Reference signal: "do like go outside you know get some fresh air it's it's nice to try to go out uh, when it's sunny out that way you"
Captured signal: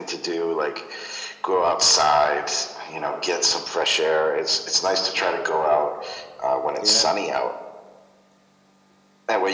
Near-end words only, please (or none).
Yeah.